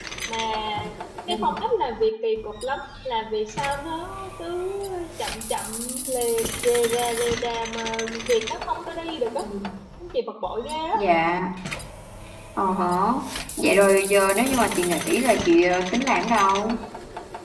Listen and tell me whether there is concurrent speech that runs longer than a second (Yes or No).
No